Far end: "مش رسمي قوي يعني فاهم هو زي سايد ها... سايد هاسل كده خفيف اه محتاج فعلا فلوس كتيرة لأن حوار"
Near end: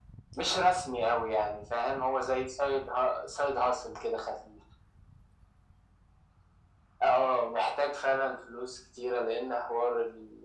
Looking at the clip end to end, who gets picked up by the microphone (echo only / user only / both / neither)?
echo only